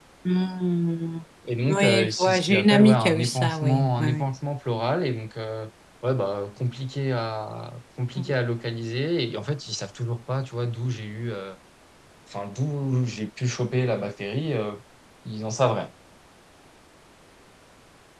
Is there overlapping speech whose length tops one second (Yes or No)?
Yes